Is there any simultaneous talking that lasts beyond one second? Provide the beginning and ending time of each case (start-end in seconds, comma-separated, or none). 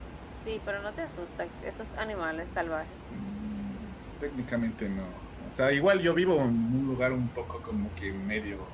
none